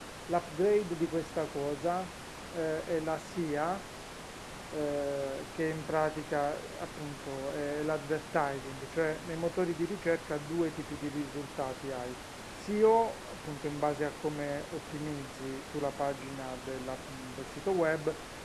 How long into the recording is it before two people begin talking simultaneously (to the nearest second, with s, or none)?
none